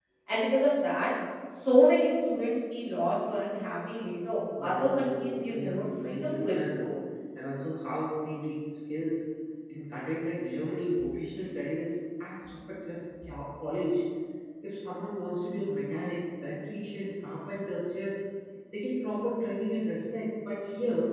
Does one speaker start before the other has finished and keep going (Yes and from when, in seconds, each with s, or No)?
Yes, from 4.6 s